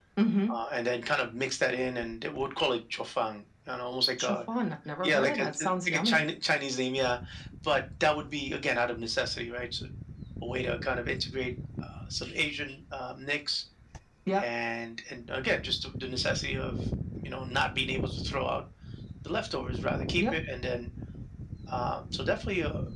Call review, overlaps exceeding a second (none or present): present